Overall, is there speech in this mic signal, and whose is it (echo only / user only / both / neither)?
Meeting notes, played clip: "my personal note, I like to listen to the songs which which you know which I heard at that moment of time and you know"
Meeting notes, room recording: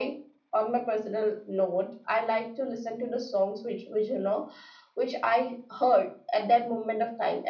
echo only